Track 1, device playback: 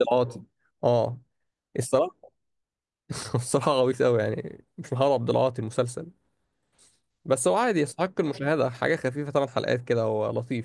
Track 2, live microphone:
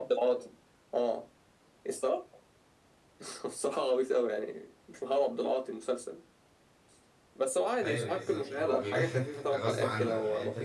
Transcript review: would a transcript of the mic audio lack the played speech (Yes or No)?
No